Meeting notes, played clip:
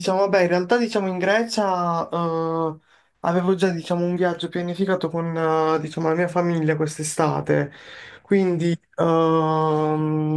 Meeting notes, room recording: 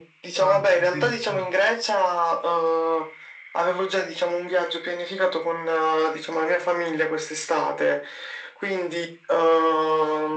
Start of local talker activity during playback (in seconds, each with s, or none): 0.4 s